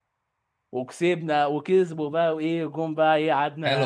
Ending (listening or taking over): taking over